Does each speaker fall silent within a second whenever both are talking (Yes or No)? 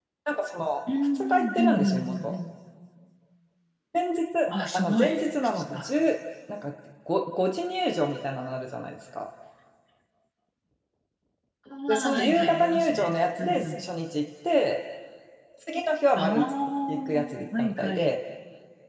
No